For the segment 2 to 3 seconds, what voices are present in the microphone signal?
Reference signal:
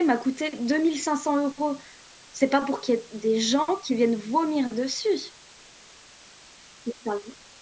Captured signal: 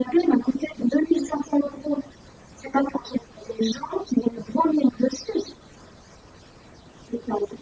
echo only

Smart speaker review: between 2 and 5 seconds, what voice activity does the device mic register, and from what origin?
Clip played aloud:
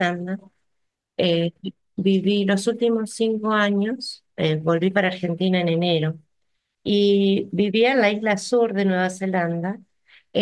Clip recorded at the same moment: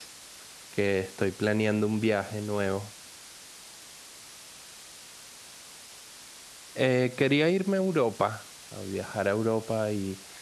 user only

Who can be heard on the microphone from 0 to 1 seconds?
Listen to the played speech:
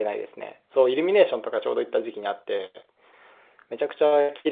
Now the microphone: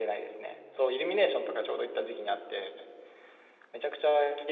echo only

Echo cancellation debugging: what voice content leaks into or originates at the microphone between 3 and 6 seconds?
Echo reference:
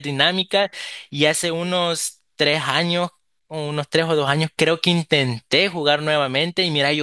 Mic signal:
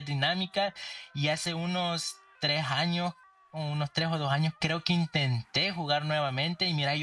echo only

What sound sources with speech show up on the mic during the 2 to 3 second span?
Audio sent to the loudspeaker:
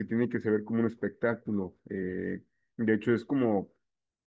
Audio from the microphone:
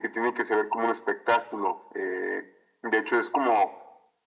echo only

